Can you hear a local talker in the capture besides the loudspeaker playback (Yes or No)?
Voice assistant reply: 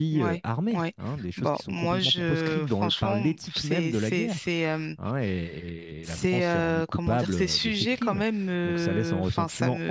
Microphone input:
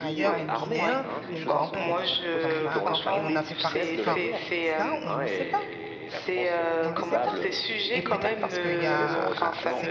Yes